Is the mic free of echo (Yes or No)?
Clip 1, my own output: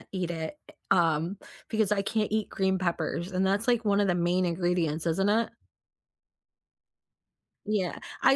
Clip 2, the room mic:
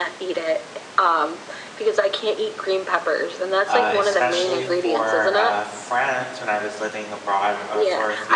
No